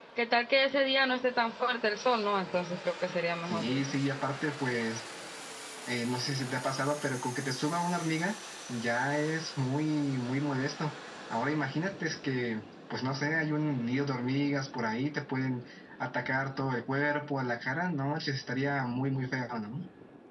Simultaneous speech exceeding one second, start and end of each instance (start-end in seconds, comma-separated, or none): none